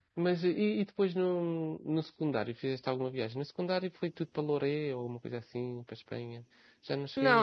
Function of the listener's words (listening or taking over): taking over